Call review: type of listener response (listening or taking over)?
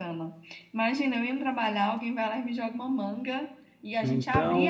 listening